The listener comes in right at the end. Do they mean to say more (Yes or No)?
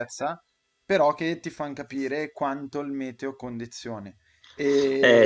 Yes